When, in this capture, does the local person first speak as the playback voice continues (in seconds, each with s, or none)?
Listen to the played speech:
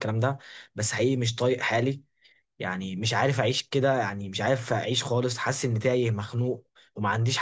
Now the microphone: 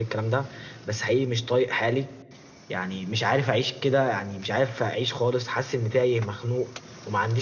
none